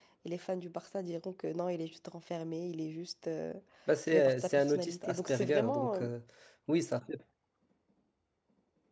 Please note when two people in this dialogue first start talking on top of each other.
4.1 s

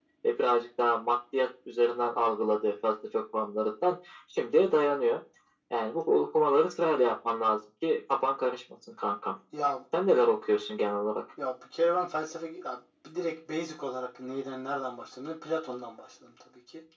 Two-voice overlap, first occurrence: none

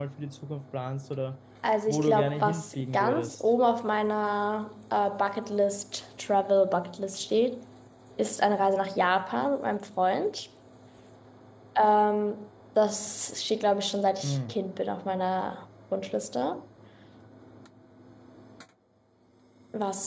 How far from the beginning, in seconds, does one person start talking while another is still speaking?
1.9 s

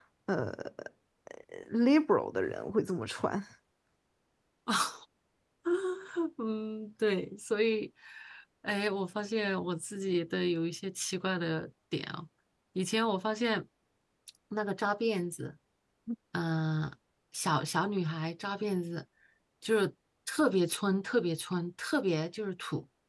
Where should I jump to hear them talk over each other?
none

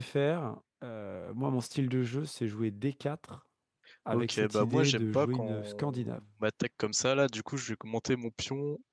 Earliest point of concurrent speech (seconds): 4.1 s

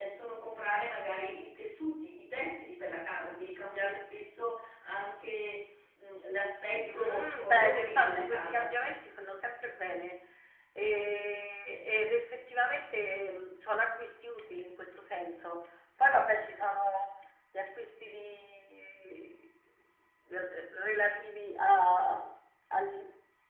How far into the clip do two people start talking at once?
6.9 s

